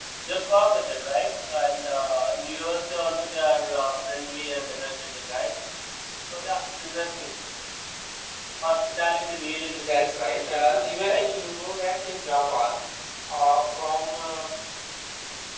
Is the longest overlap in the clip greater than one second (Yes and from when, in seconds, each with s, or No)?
Yes, from 9.8 s